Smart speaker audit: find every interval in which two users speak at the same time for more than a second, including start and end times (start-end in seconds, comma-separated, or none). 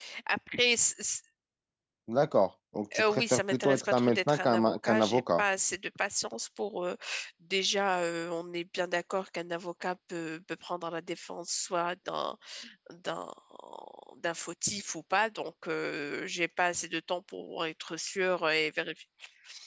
3.0-5.4